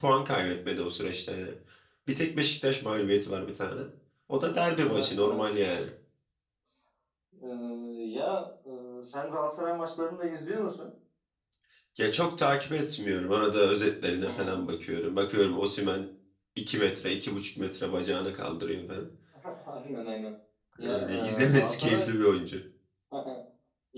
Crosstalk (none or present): present